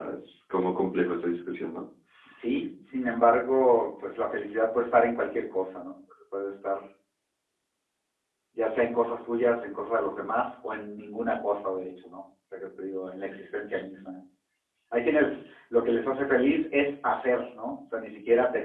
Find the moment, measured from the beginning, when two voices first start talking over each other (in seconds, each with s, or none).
none